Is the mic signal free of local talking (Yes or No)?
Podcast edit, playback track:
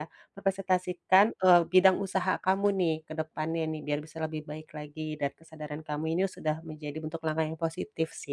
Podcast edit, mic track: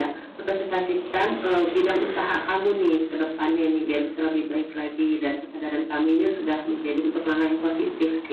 Yes